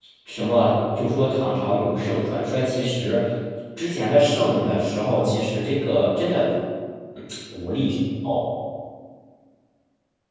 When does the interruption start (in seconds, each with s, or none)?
none